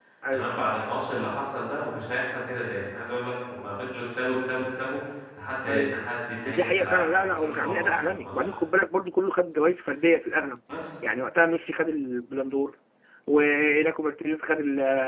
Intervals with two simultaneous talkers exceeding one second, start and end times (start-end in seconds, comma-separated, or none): 6.4-8.6